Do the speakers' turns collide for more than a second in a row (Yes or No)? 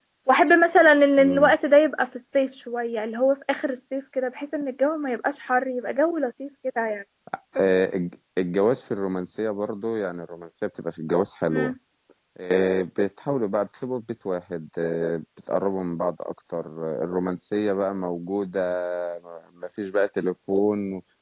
No